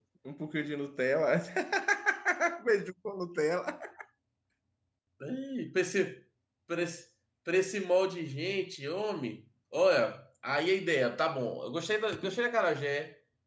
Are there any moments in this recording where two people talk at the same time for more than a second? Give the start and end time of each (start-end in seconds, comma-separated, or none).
none